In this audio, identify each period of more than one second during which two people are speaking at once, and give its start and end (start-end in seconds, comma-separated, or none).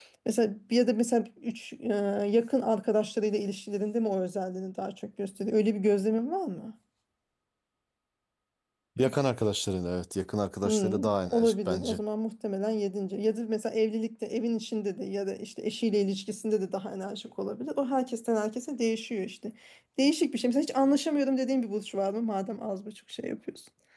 10.6-12.0